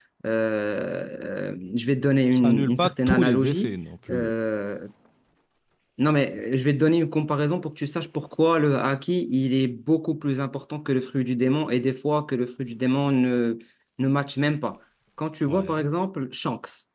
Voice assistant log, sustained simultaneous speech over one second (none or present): present